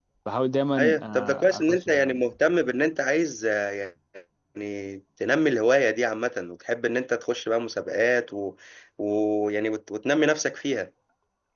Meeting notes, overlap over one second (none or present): present